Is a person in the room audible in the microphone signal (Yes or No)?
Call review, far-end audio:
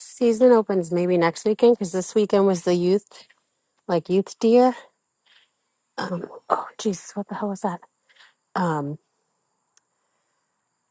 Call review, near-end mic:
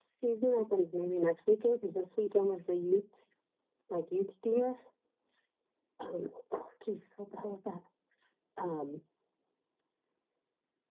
No